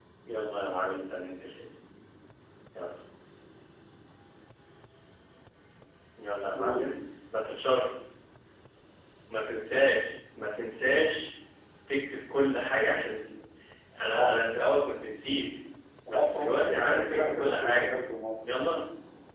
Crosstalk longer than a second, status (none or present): present